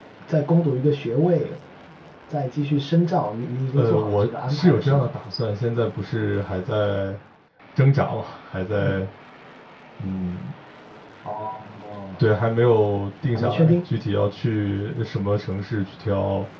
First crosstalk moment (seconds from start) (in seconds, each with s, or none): 3.7 s